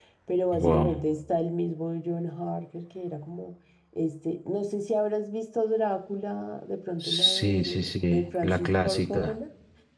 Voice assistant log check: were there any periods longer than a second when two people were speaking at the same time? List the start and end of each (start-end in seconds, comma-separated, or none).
7.0-9.3